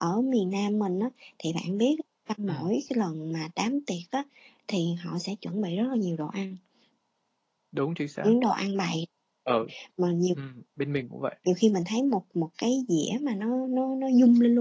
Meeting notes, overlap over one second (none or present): none